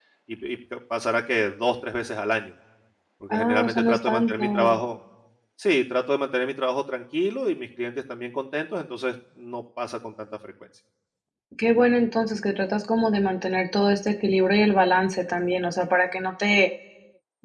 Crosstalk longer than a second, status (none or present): present